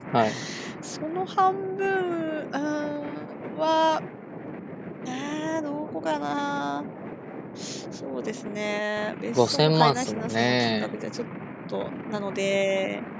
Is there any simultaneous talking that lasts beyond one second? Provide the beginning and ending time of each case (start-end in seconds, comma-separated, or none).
9.3-10.9